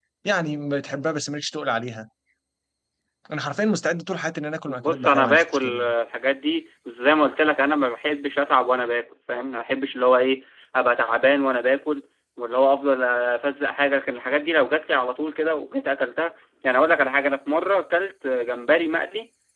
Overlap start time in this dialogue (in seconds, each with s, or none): 4.7 s